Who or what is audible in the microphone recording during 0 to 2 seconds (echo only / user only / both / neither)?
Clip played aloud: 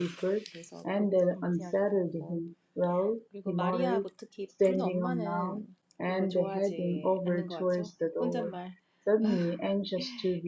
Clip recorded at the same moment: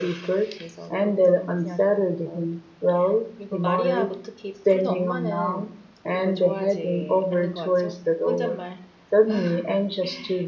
echo only